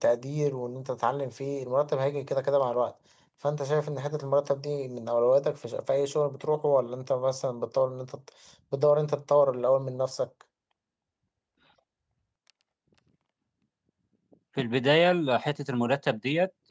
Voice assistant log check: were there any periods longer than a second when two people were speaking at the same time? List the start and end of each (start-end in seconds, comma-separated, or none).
none